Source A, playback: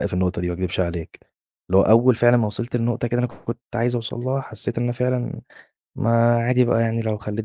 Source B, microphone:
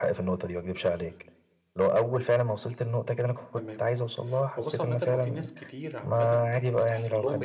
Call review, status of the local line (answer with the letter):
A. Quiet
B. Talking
B